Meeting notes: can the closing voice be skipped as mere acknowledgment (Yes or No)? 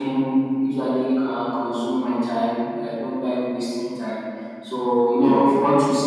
Yes